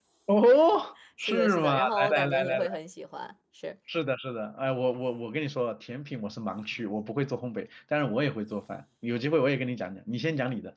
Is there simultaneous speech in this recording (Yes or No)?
Yes